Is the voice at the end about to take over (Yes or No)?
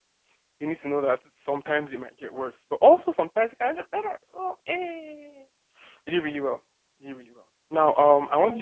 No